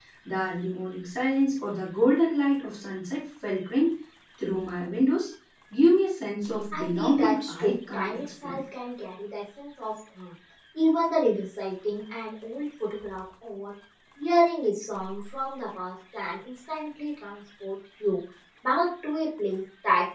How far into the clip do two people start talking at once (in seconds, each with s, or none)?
6.7 s